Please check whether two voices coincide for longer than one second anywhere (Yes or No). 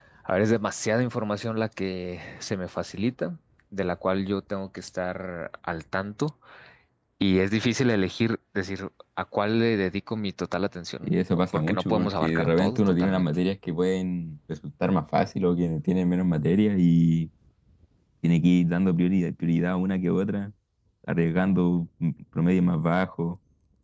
Yes